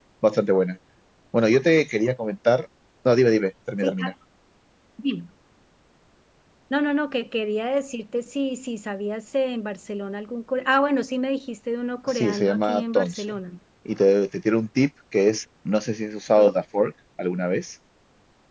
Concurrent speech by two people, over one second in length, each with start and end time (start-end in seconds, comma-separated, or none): 12.1-13.3